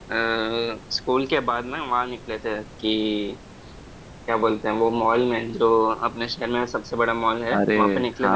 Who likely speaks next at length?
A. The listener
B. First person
A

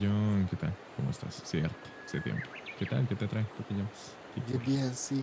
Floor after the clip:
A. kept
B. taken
B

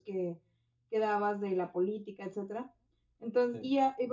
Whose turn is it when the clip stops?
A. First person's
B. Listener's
A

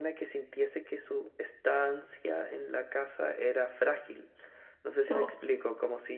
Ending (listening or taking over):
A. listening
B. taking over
A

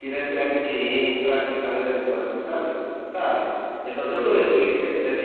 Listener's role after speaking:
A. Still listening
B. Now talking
A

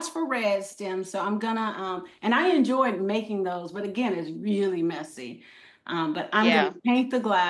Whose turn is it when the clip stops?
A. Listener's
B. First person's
B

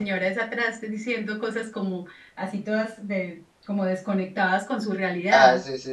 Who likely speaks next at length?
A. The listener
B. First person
A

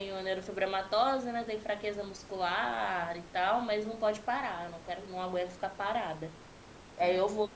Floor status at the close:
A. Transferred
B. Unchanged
B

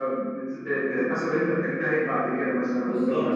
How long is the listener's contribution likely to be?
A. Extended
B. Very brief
A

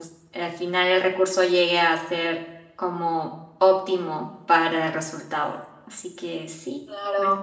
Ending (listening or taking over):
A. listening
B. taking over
B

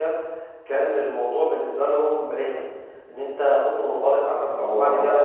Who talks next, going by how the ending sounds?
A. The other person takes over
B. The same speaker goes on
B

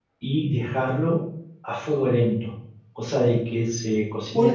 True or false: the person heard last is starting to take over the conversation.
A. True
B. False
A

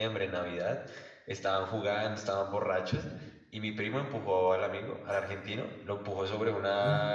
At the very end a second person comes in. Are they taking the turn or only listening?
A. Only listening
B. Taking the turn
A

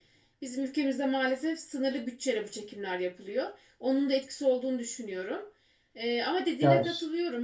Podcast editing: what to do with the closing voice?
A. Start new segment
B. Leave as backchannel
B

